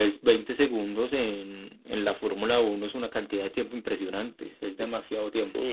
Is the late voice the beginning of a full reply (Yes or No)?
Yes